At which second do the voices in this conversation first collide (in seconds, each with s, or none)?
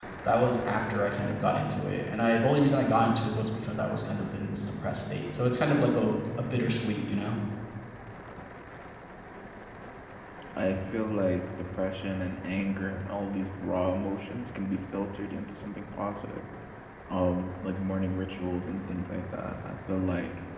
none